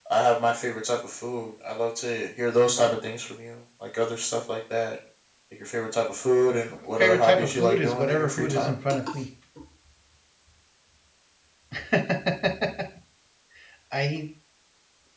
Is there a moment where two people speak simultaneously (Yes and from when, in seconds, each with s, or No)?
Yes, from 7.0 s